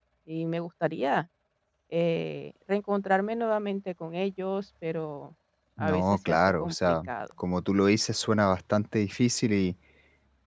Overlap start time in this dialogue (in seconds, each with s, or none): 5.8 s